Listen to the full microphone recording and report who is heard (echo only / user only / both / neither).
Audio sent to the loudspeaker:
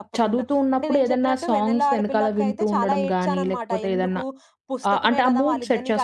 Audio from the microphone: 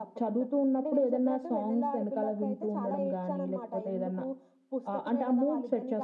echo only